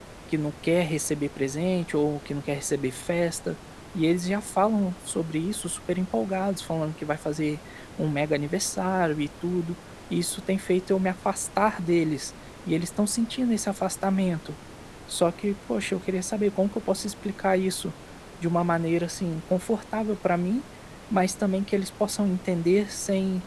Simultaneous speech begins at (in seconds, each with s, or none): none